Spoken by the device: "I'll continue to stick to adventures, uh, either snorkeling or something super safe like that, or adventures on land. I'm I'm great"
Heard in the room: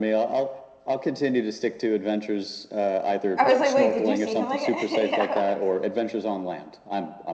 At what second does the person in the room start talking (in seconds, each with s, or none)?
3.4 s